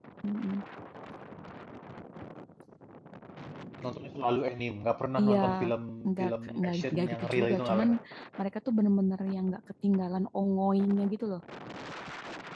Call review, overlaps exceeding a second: present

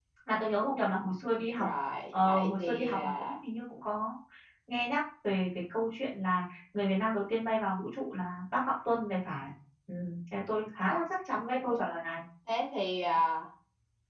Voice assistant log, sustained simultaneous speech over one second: present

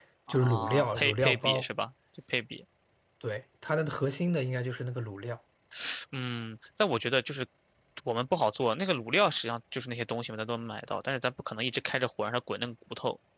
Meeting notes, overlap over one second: present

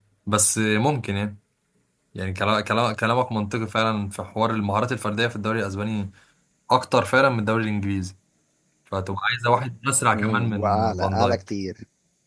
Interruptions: present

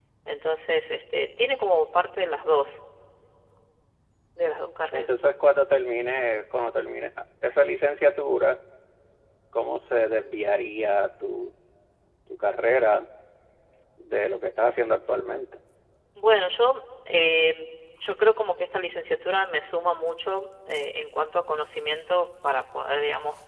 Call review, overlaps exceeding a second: none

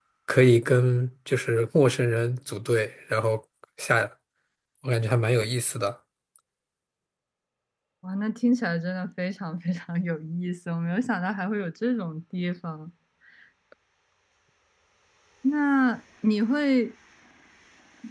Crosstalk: none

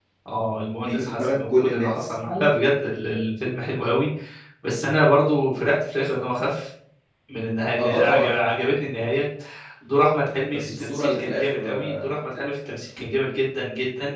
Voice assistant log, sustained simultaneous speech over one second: present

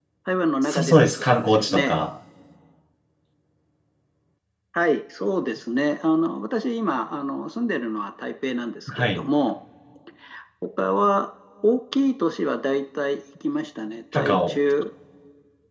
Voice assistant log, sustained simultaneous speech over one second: present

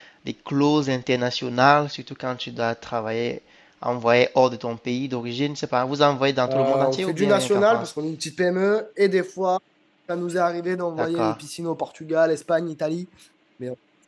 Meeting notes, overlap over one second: present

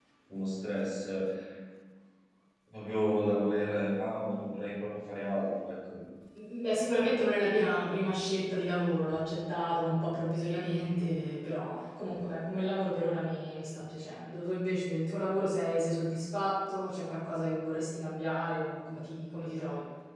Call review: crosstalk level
none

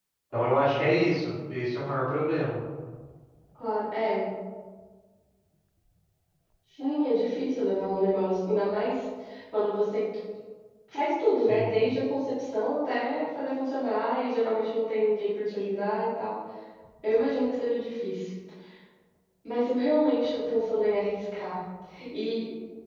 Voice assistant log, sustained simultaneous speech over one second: none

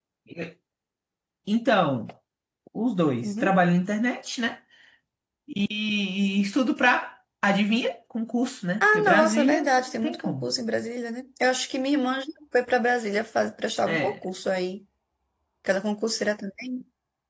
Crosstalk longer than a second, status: present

